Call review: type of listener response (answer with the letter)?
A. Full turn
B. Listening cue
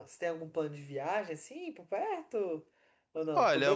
A